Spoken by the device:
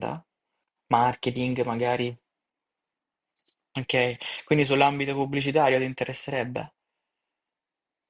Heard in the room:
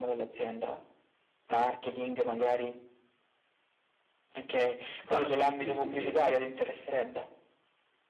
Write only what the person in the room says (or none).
Esatto, sì, sì, sì.